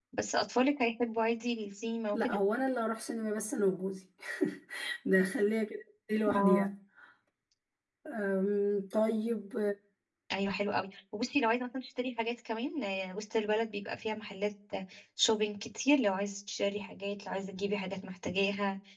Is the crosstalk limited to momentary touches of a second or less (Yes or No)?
Yes